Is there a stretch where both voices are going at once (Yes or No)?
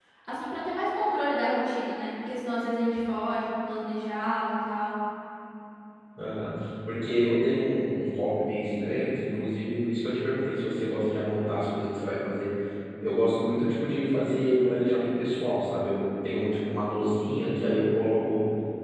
No